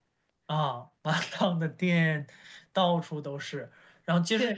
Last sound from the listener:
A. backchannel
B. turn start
A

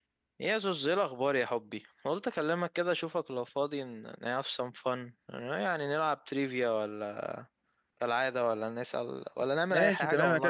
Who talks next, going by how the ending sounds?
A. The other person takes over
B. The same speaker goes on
A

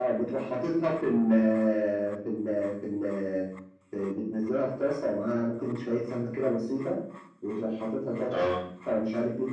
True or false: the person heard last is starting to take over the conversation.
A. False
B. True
A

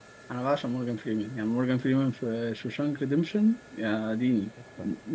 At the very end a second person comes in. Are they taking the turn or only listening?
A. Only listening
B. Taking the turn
B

